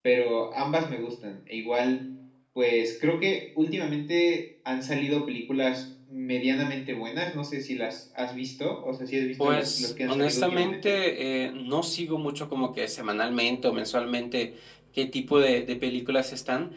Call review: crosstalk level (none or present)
present